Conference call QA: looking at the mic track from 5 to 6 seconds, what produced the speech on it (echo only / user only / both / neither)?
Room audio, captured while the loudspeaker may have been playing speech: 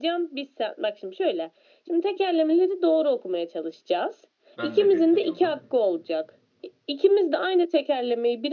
both